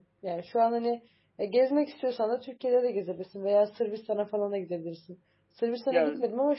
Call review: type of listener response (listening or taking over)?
listening